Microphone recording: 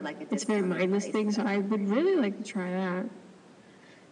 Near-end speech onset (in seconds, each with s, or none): none